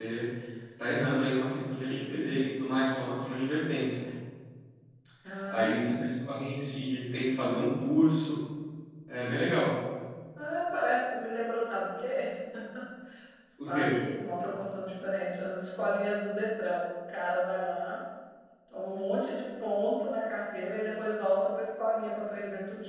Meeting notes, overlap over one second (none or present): none